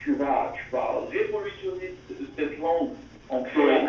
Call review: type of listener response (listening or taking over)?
listening